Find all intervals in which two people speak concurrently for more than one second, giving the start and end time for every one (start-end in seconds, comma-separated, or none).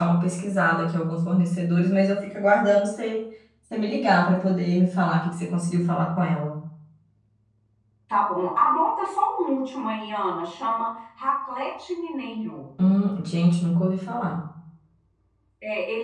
none